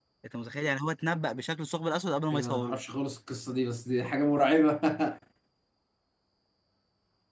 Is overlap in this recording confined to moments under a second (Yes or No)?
Yes